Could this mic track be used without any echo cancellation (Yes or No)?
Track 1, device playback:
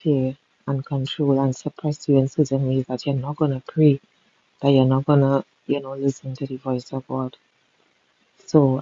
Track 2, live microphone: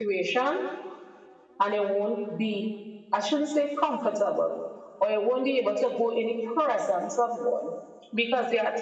Yes